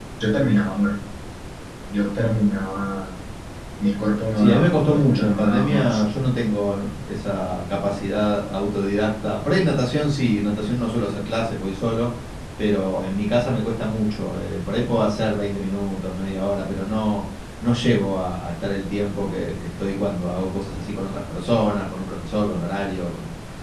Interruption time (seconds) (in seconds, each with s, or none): 4.4 s